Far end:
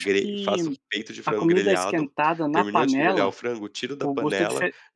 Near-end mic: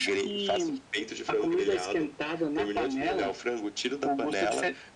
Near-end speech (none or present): none